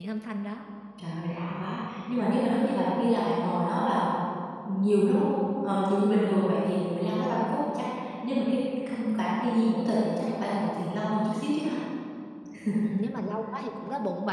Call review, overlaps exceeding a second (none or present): none